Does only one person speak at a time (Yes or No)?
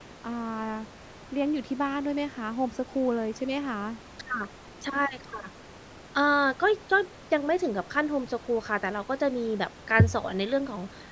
Yes